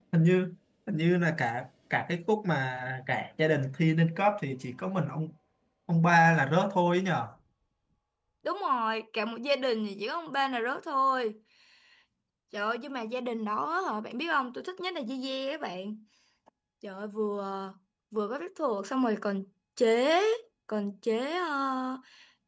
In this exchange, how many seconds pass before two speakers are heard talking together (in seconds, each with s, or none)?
none